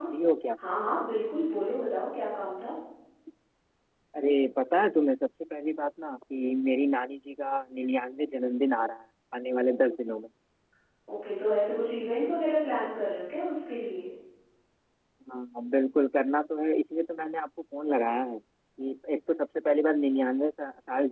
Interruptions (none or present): none